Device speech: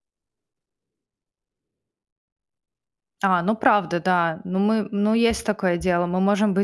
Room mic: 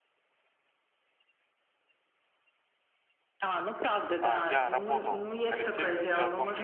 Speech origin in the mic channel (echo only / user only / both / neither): both